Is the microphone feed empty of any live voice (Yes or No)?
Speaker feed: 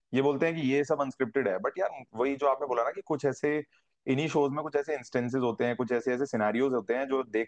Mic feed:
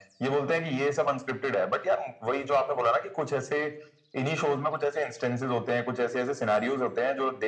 Yes